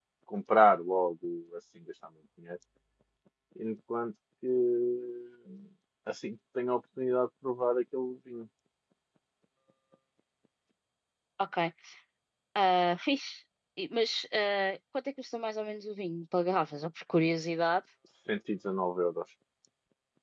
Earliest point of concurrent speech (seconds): none

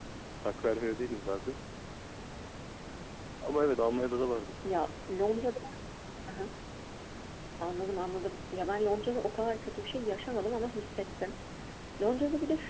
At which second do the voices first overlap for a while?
none

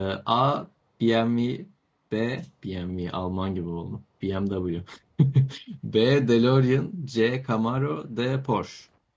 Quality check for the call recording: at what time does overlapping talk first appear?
none

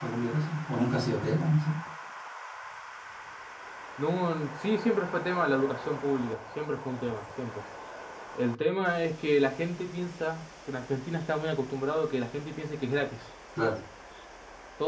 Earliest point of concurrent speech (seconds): none

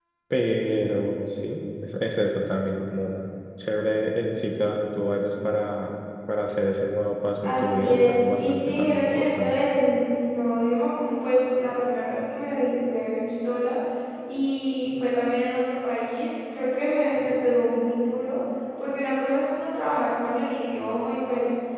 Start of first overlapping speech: 7 s

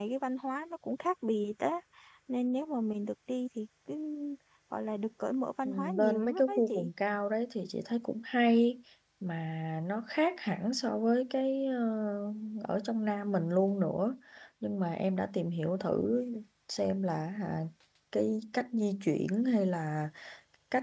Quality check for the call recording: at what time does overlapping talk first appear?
6 s

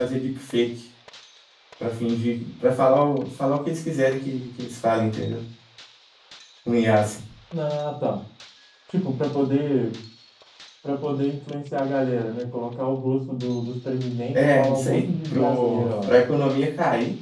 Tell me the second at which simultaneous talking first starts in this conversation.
14 s

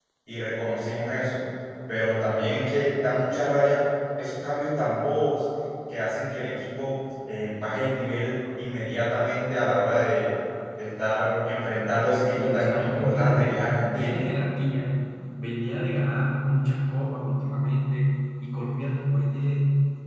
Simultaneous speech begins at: 12 s

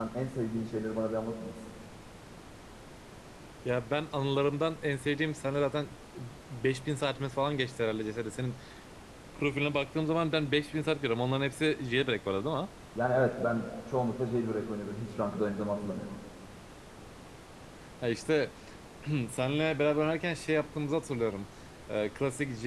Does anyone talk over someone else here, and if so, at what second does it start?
none

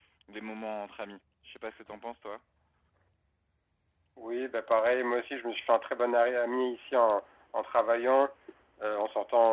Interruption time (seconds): none

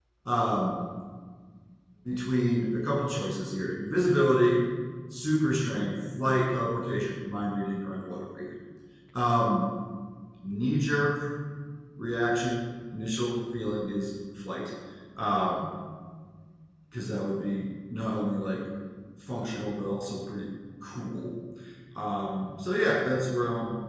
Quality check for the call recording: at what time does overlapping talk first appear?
none

